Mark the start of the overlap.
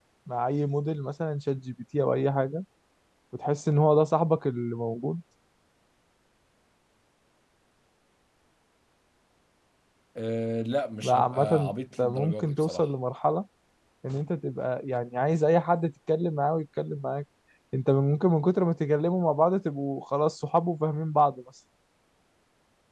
11 s

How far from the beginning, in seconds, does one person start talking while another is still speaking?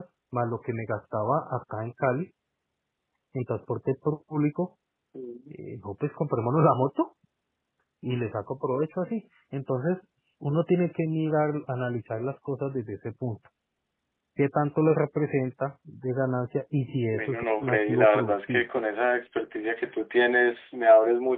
17 s

